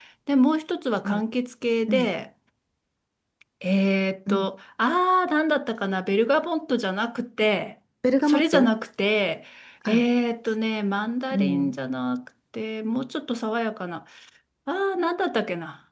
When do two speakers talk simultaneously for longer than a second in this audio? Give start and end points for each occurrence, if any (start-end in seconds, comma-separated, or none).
none